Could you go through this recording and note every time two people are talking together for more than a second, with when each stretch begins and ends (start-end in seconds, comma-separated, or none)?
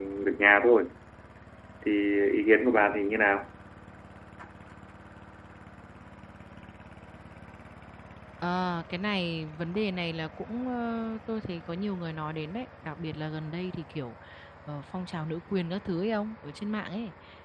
none